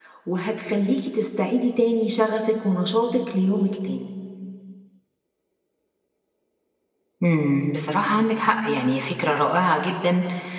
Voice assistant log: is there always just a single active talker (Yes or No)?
Yes